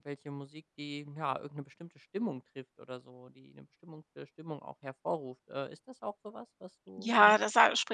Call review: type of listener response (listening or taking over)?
taking over